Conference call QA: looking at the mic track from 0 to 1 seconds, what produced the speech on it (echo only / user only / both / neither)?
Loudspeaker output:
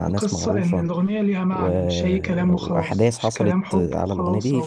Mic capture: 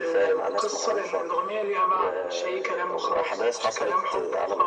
echo only